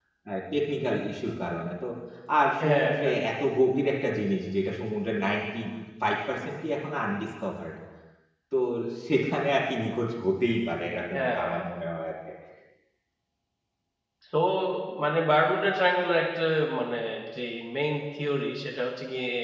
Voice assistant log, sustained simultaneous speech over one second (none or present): none